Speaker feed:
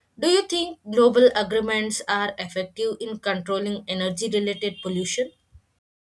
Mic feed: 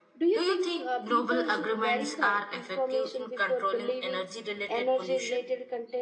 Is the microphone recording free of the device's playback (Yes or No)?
No